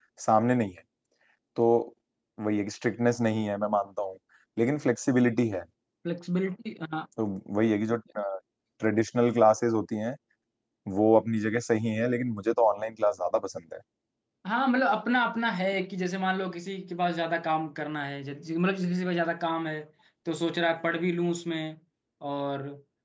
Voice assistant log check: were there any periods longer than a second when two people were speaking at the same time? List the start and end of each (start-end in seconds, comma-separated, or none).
none